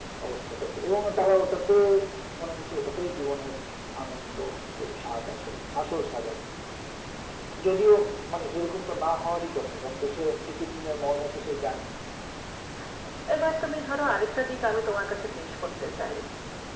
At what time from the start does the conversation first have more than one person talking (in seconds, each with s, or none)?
none